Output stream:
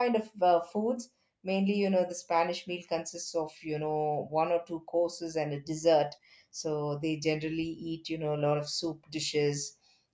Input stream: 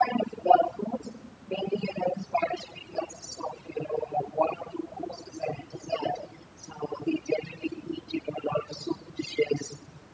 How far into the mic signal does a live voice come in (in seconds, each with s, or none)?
none